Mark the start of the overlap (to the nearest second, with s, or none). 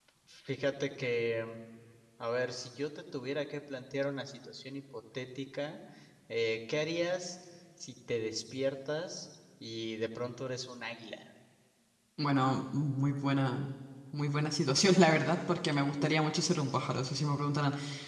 none